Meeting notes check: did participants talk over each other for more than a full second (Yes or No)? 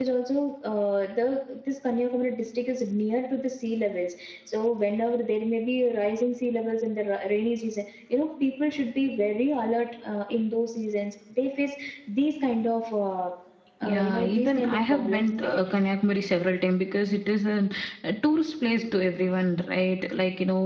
Yes